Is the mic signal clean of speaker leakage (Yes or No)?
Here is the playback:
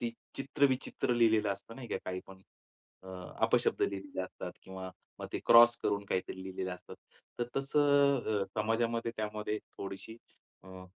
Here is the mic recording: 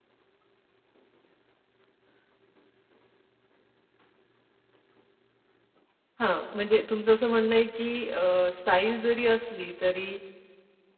Yes